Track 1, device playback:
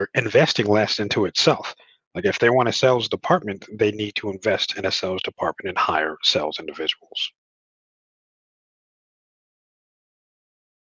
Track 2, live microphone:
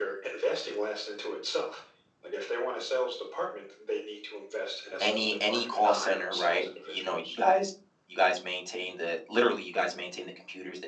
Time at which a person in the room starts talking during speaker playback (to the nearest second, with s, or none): 5 s